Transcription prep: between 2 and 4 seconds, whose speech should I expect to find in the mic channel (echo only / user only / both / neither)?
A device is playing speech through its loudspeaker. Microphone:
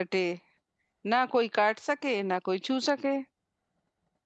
user only